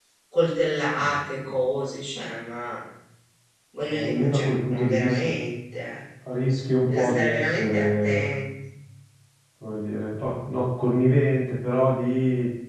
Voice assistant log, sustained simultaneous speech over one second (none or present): present